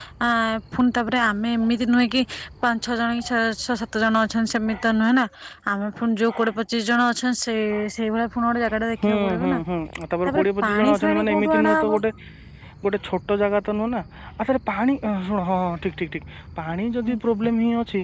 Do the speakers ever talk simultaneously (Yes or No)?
Yes